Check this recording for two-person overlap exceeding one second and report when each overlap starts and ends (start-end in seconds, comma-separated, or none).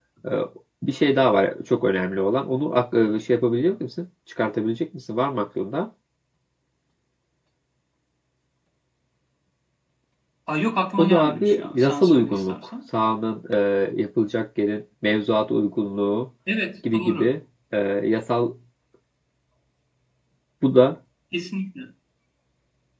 11.0-12.7